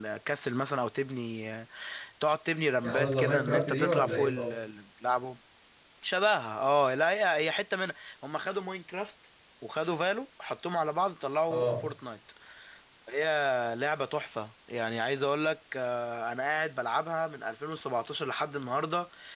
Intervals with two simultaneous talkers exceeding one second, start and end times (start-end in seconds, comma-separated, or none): 2.8-4.5